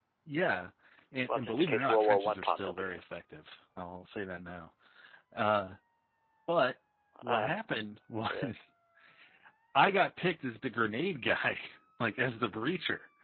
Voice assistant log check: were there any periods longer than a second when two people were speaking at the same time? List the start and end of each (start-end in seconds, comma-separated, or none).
1.3-3.0